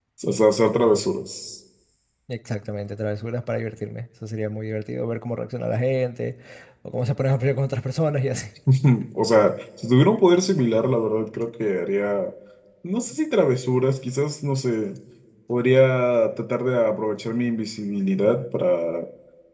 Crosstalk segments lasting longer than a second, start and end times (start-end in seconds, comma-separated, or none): none